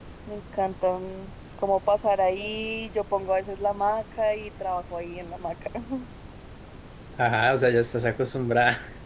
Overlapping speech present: No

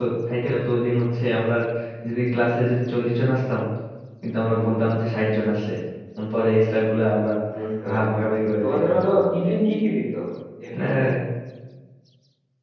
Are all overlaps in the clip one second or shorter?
Yes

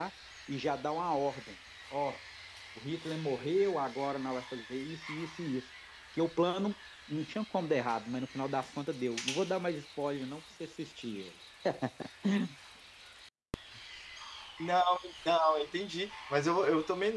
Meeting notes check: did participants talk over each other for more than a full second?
No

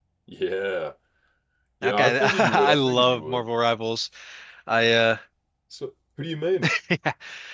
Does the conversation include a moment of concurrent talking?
Yes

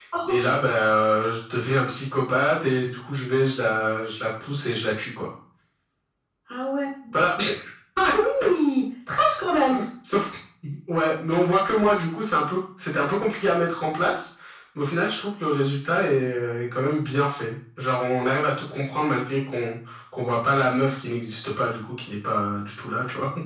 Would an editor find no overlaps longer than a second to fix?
Yes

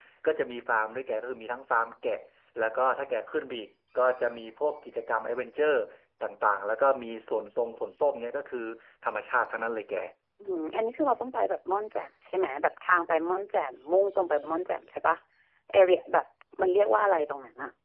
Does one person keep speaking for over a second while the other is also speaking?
No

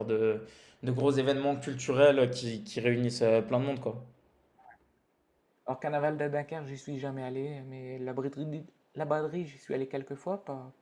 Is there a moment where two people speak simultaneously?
No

